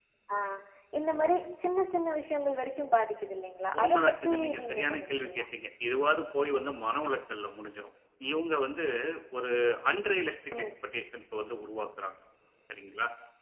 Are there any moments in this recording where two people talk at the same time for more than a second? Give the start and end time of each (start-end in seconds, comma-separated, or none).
3.8-5.4